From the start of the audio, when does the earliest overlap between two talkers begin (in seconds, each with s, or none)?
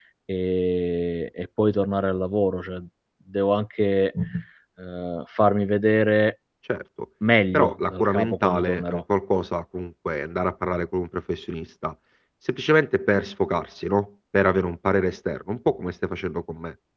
7.5 s